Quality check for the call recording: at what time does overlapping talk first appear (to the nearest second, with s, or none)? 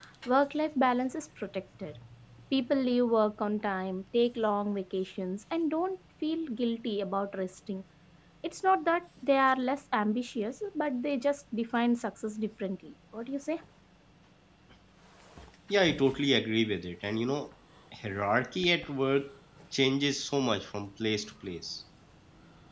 none